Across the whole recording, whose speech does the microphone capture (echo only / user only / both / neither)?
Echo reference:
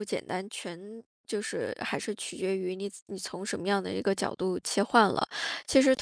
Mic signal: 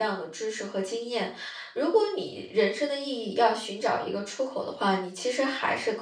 user only